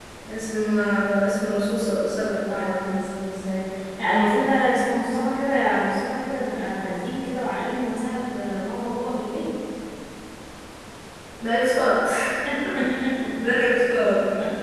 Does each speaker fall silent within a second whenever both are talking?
Yes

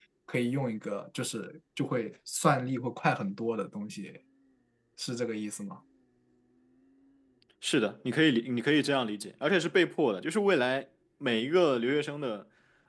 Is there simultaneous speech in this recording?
No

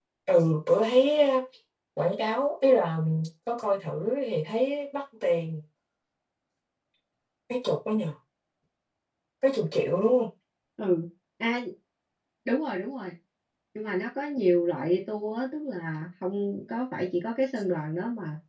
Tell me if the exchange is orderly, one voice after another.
Yes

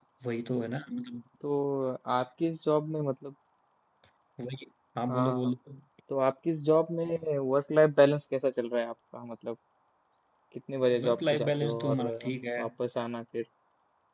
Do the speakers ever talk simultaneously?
Yes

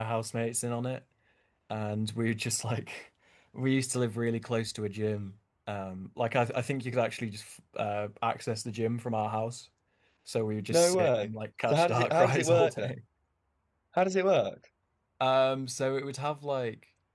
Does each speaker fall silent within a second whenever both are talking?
No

